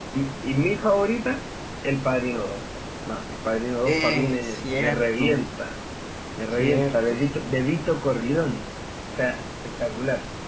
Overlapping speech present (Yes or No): Yes